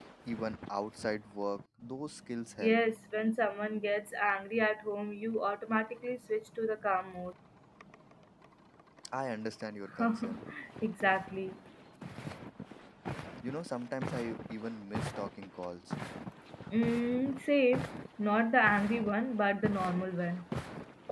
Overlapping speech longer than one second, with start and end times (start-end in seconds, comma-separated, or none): none